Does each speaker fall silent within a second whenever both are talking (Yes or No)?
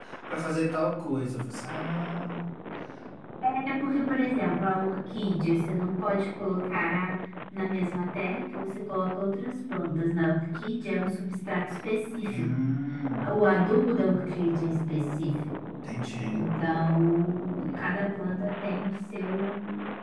Yes